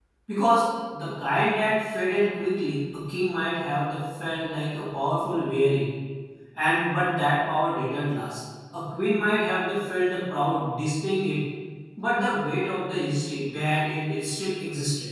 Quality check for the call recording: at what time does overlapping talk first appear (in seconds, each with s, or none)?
none